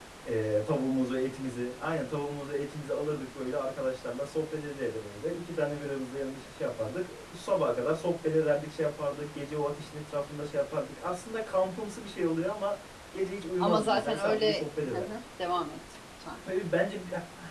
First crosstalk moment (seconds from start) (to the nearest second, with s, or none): 14 s